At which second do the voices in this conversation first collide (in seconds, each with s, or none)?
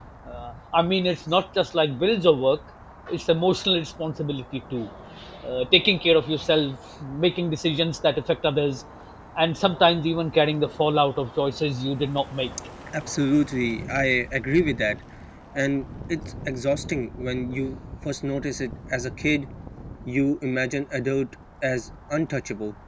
none